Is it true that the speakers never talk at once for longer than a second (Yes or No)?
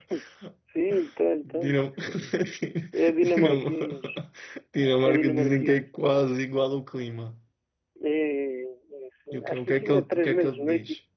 No